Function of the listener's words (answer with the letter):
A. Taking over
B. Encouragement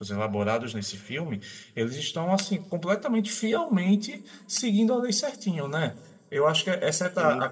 B